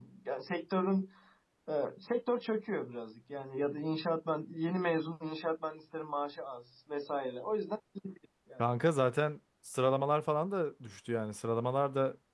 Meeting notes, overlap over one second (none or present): none